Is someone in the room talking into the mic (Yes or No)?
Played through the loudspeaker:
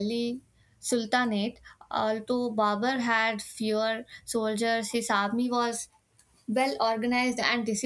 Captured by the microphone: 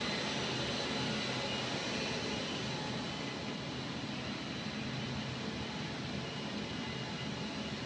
No